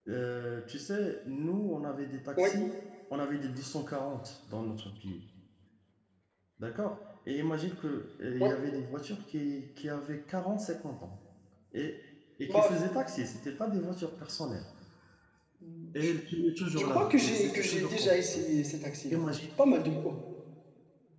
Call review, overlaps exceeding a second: present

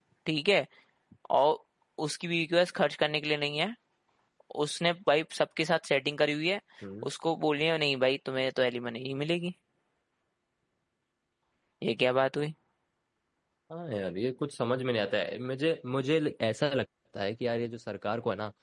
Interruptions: none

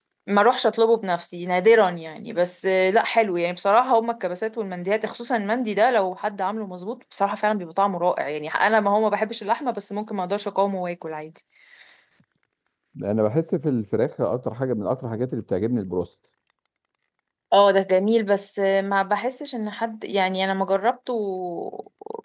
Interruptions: none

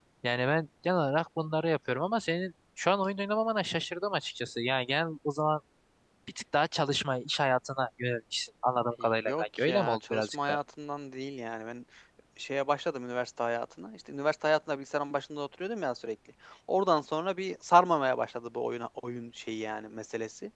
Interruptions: present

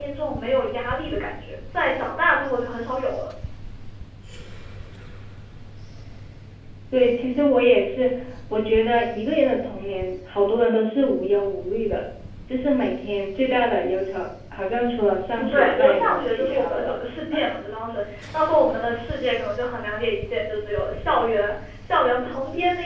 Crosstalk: present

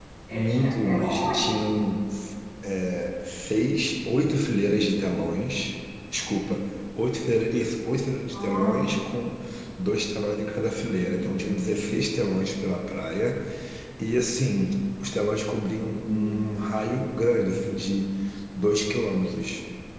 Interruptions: present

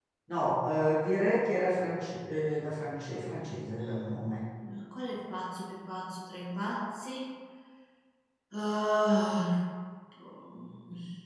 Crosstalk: none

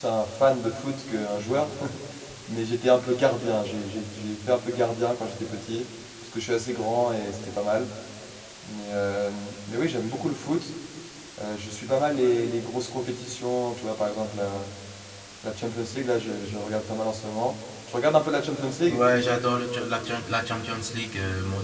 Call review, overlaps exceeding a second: none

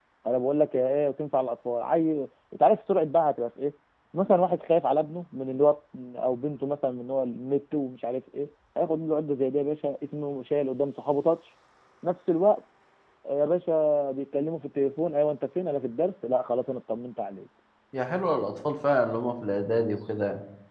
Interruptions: none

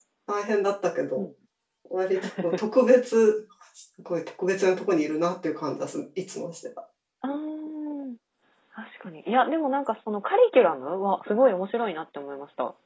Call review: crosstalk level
none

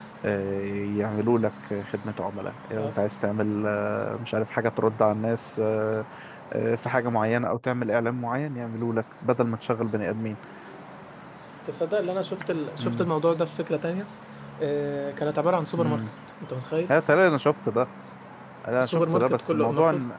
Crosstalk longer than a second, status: present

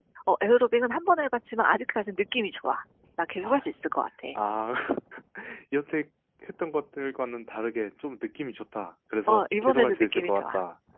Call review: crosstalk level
present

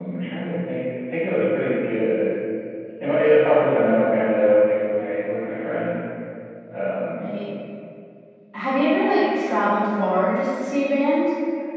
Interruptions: none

